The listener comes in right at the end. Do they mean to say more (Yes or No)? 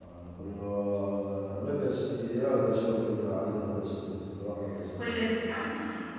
Yes